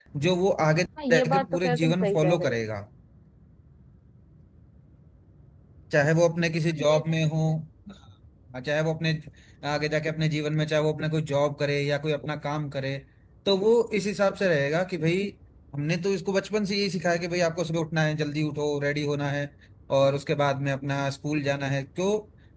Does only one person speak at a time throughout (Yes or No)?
No